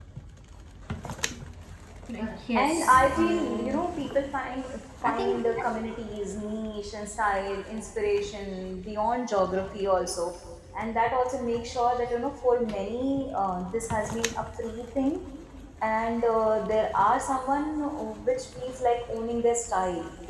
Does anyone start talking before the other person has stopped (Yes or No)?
Yes